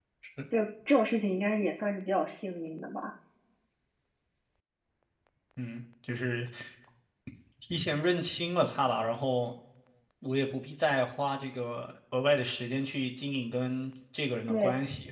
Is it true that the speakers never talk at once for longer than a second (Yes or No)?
Yes